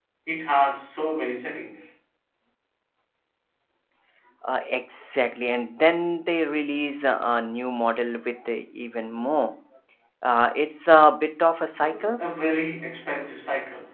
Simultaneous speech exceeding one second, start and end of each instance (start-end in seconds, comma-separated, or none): none